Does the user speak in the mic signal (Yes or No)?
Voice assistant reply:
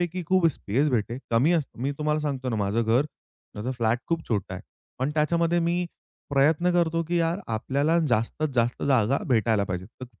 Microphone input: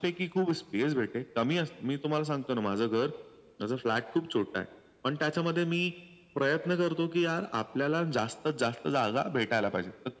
No